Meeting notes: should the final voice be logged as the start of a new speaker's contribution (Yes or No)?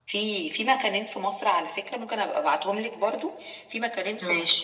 No